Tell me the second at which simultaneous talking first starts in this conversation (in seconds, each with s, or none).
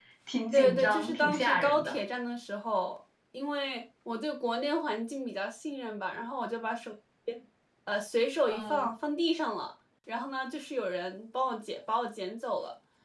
0.5 s